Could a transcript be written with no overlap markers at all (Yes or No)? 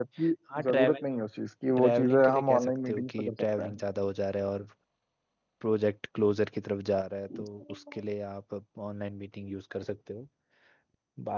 No